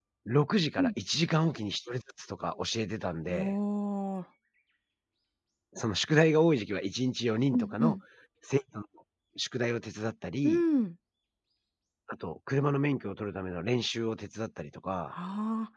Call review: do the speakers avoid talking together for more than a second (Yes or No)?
Yes